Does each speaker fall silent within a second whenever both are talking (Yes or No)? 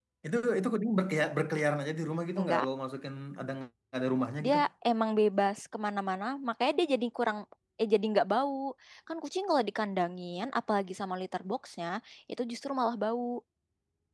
Yes